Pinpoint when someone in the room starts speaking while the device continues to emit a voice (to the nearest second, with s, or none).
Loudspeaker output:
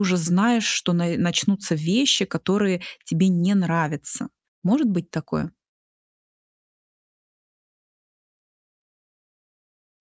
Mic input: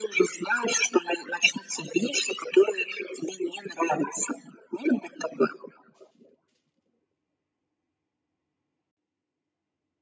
none